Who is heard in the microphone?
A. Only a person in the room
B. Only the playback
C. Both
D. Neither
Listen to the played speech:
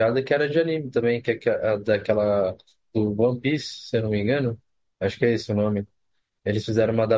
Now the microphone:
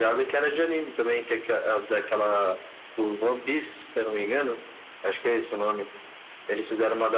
B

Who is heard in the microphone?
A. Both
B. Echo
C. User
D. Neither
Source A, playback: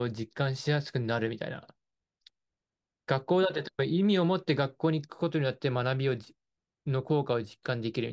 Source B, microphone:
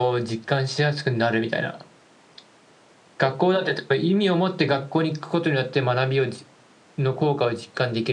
B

